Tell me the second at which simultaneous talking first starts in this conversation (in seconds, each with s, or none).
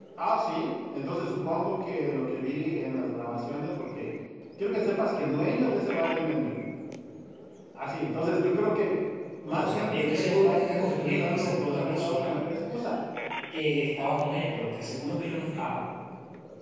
9.4 s